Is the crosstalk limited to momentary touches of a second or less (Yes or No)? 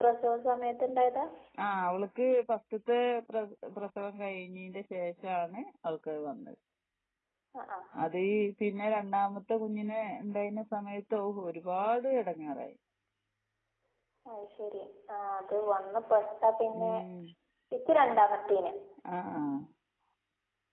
Yes